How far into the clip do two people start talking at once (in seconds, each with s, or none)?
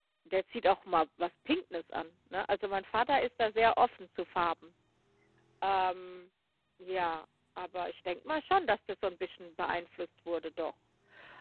none